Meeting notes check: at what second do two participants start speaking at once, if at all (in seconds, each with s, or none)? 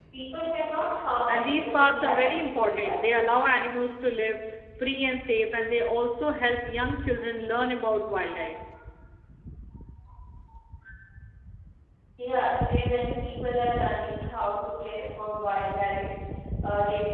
1.3 s